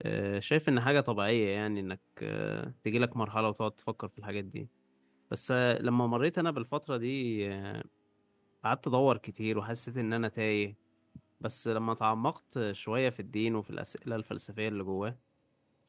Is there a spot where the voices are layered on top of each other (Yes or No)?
No